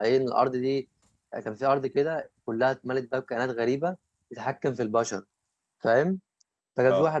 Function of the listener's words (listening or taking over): listening